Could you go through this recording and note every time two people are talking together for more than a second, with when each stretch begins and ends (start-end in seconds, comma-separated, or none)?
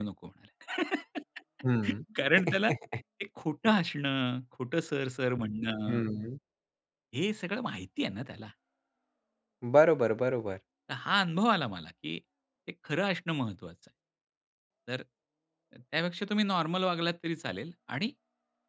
none